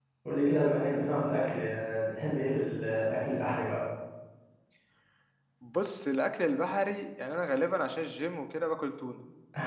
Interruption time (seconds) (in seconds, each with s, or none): none